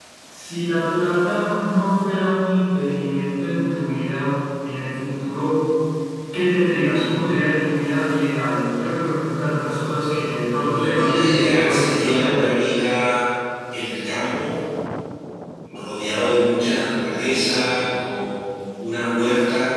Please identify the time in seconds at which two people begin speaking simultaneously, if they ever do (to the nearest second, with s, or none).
11 s